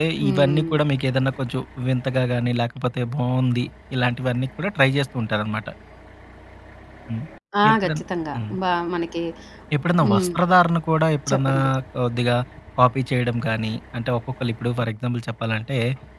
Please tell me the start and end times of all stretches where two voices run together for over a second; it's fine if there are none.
none

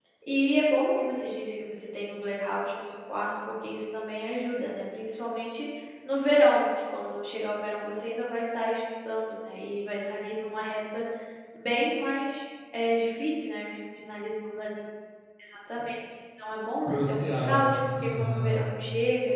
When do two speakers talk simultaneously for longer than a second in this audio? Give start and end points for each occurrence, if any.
16.8-18.6

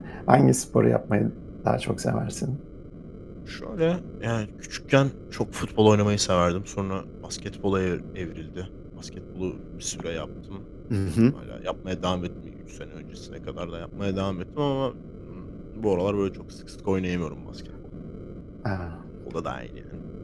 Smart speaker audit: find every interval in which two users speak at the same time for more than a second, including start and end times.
none

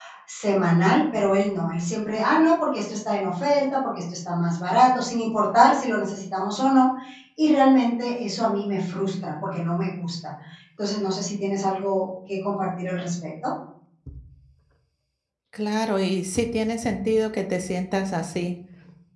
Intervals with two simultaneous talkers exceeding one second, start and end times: none

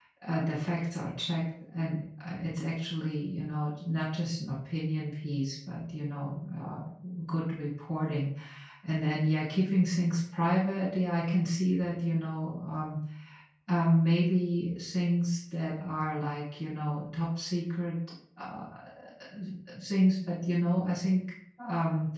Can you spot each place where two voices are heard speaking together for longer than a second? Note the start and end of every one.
none

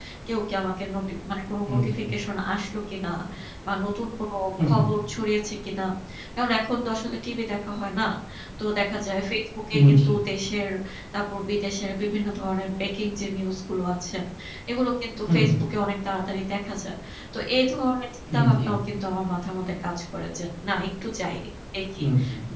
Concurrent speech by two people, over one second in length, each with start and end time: none

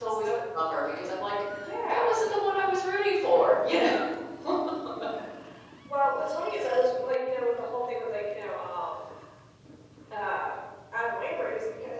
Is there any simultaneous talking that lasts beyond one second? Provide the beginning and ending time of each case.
none

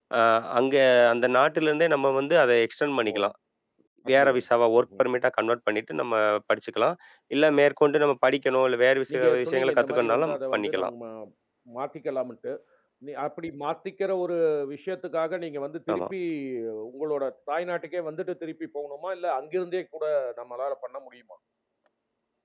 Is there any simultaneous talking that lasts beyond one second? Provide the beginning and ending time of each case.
9.1-10.9

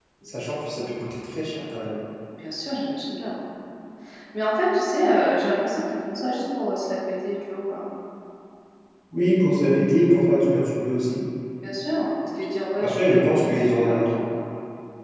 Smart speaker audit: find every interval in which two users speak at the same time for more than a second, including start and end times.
12.8-14.1

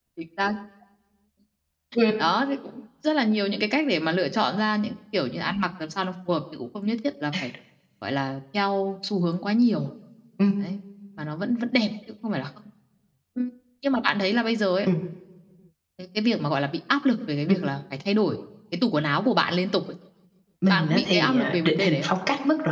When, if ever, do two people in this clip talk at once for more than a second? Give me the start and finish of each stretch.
20.7-22.1

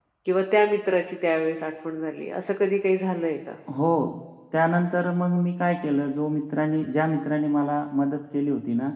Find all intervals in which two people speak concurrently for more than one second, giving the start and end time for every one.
none

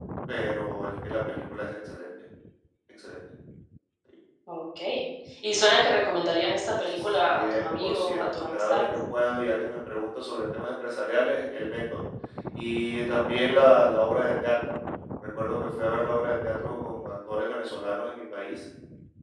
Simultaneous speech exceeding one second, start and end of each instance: 7.0-8.8

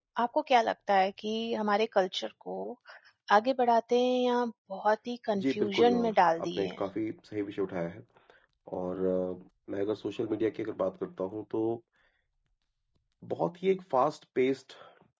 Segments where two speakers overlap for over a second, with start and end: 5.4-6.8

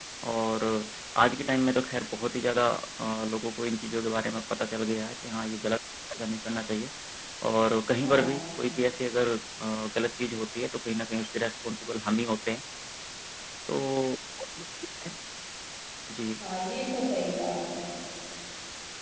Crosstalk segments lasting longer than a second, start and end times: none

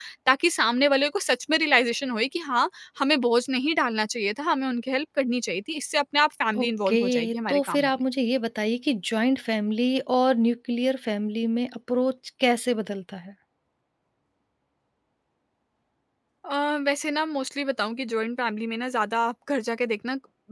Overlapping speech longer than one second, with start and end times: 6.6-7.9

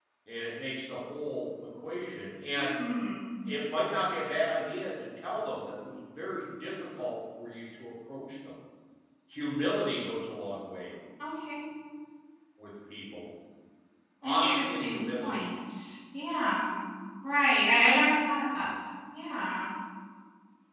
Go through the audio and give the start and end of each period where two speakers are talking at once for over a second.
14.2-15.5

